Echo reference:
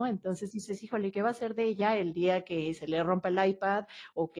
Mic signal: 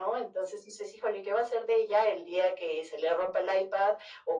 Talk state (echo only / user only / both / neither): echo only